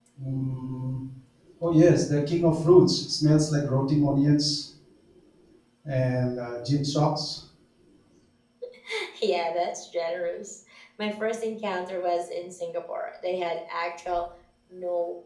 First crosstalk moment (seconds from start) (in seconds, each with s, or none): none